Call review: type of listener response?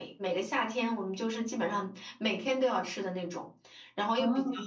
listening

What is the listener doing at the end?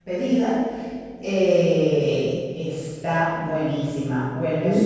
listening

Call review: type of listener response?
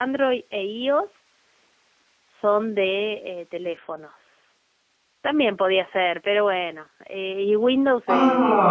taking over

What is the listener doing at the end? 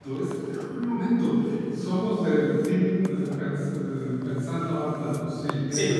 taking over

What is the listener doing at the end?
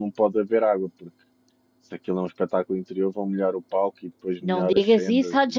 taking over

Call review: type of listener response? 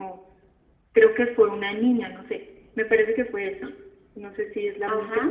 taking over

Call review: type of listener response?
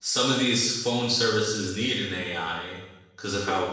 listening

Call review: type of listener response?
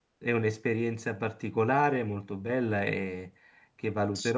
listening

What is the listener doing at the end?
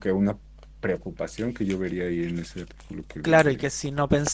taking over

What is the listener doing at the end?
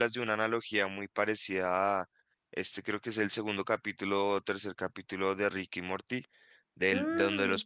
listening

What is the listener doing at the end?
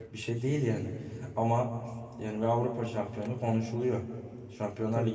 listening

